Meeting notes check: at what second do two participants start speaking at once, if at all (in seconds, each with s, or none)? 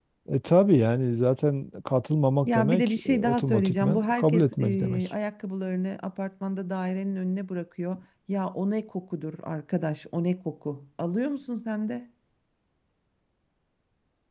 2.4 s